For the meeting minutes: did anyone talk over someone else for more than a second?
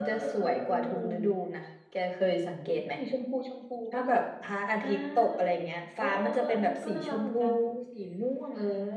Yes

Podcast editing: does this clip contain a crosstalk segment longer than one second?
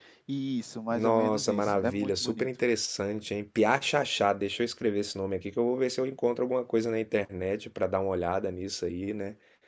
Yes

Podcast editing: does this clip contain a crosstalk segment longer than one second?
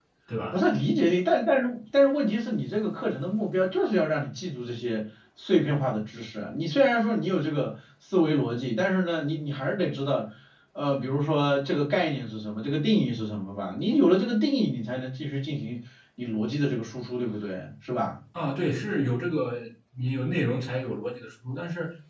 No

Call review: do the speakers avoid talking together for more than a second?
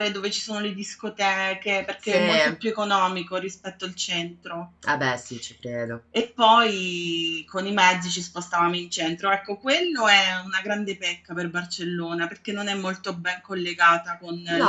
Yes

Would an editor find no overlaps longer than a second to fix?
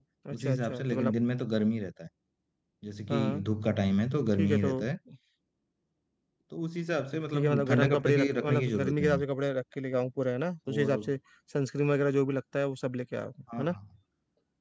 No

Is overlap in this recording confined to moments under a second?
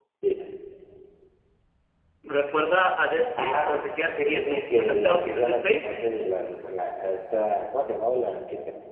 No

